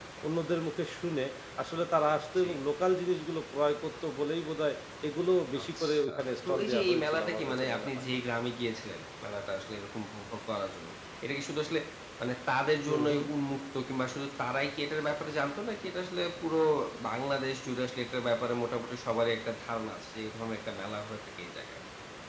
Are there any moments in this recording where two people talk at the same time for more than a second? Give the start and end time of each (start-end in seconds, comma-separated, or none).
5.6-8.0